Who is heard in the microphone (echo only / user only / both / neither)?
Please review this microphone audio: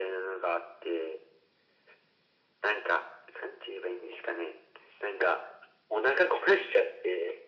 echo only